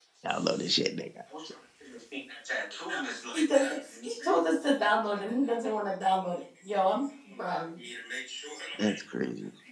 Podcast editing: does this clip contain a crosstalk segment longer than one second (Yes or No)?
No